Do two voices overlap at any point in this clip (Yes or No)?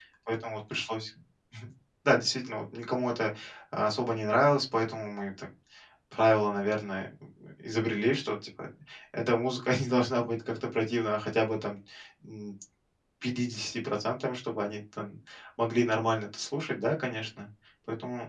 No